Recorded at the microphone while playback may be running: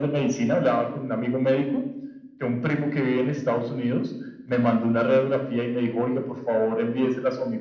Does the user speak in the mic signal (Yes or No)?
No